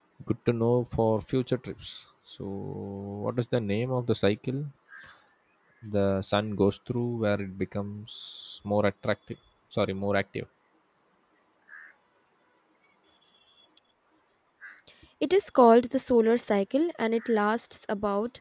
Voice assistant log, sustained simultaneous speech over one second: none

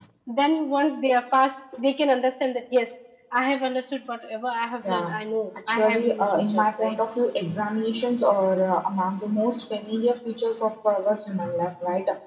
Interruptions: present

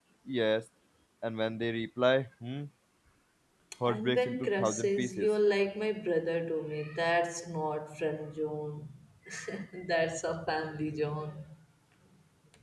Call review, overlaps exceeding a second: present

